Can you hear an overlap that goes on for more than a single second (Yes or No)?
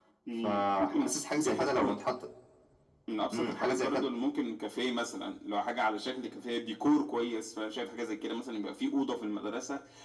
Yes